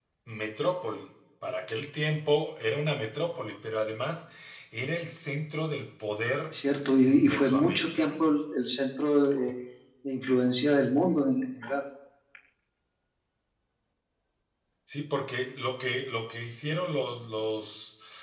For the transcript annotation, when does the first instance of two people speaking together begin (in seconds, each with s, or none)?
7.1 s